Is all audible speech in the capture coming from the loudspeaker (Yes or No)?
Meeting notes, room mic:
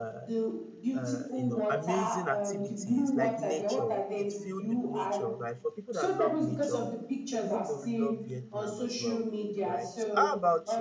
No